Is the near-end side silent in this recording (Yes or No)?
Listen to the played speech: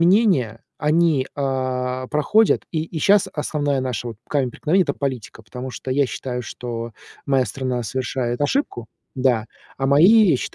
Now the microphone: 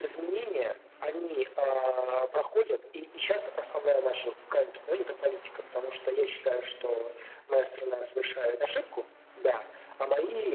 Yes